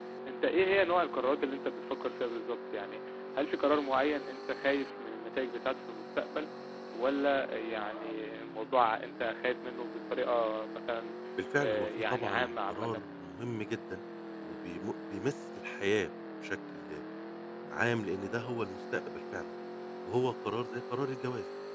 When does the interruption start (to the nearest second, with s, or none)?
12 s